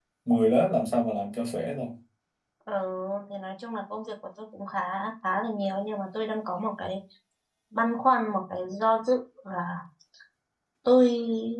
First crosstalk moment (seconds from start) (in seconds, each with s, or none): none